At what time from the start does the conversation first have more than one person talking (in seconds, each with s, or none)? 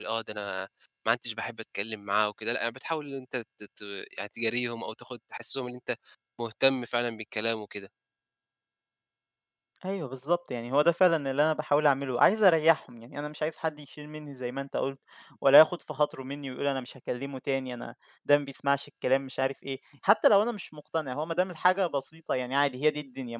none